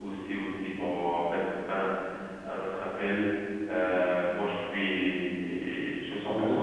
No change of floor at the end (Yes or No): Yes